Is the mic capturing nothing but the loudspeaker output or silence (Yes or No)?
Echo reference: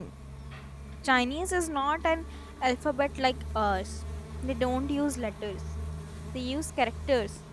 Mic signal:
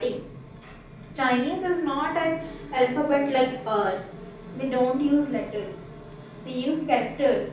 Yes